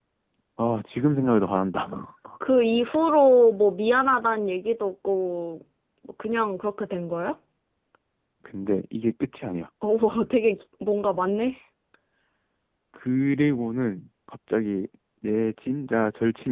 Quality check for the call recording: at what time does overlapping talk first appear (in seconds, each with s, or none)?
none